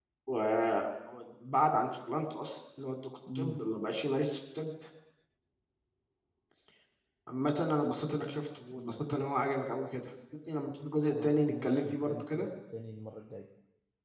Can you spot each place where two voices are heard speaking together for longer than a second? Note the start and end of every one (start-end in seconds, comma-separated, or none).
11.1-12.5